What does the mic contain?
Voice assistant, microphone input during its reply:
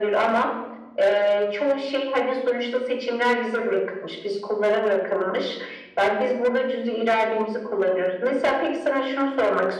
echo only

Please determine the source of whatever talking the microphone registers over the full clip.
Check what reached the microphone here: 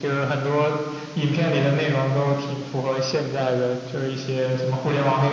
echo only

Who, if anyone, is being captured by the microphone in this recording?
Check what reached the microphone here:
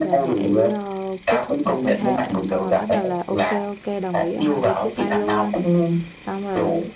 both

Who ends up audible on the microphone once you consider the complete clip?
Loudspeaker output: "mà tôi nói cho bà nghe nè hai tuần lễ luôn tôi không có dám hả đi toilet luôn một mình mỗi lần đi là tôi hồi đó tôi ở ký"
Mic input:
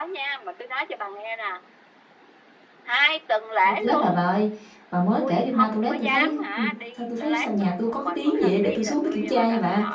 both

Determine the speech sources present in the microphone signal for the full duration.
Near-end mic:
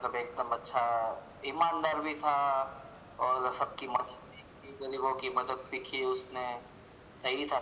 echo only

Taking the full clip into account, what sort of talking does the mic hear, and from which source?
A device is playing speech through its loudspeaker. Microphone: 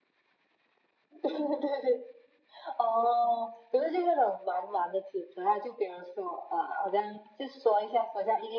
echo only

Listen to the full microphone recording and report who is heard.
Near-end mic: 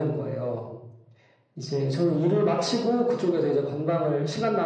echo only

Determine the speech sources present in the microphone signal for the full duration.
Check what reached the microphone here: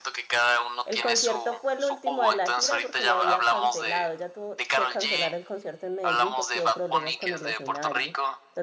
both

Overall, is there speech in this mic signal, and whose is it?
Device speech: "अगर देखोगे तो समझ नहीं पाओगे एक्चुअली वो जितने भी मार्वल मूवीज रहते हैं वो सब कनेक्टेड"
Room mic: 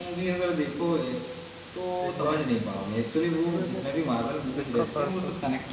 both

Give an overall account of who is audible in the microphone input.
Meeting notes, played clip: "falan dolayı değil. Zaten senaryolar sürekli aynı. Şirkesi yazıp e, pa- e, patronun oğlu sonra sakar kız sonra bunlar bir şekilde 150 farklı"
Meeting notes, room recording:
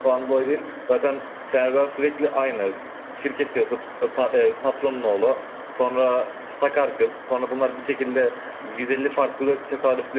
echo only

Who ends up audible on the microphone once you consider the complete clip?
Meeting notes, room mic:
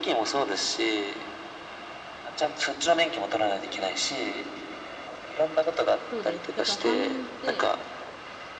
both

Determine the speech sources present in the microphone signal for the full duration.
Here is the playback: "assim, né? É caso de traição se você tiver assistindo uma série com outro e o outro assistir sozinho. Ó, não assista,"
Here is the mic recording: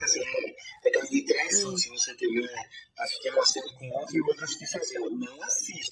both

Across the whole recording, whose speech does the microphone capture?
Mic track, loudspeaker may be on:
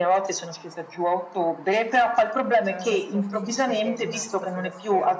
both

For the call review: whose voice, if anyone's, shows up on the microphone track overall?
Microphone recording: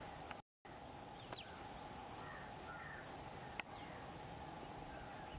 neither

